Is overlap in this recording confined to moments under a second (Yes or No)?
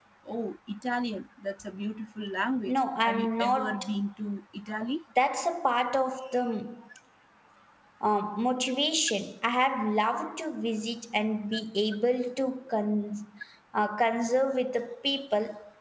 No